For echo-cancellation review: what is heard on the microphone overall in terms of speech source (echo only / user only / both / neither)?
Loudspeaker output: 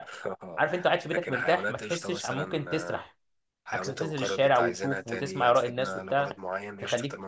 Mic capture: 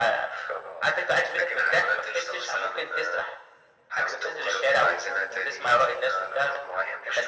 echo only